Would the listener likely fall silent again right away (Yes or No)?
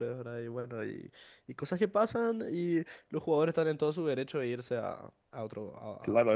No